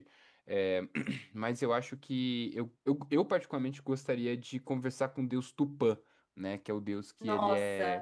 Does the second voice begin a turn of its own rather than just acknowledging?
No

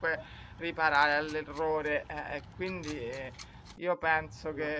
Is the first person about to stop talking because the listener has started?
No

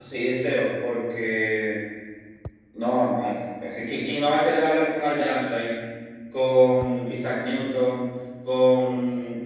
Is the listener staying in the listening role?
Yes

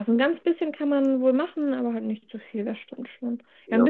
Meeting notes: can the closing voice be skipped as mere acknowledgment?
Yes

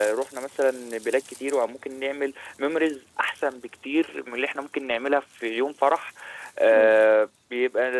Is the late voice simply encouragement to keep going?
Yes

